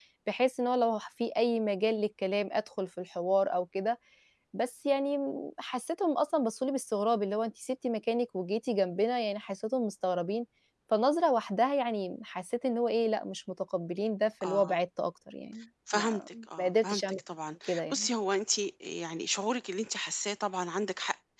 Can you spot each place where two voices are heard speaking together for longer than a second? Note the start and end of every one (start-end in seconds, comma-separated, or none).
15.9-17.2